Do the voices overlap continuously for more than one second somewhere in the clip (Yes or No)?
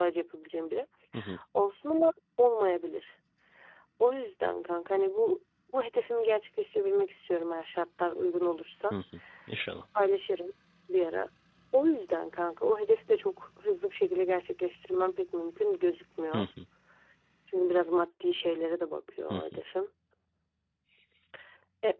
No